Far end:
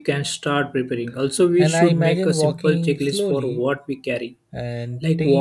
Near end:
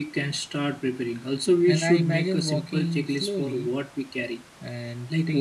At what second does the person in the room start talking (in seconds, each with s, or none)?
none